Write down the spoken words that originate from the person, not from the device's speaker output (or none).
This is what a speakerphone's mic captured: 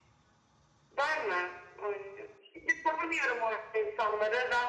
none